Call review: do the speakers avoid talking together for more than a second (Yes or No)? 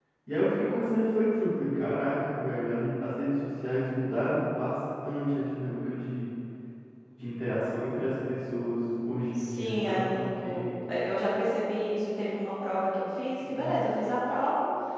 No